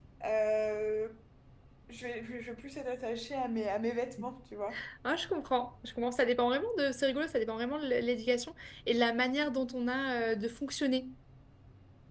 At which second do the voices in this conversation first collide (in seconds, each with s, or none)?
none